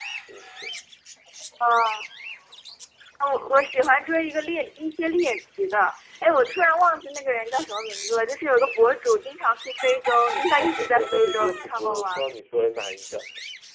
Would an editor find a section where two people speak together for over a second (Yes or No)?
Yes